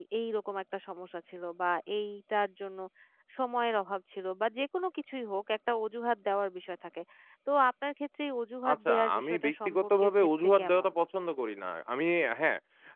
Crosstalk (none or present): present